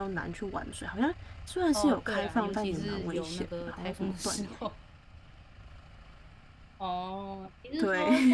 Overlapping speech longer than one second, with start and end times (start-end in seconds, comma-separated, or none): 1.7-4.6